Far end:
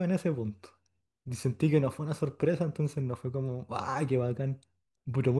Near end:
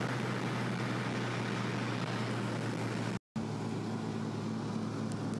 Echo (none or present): none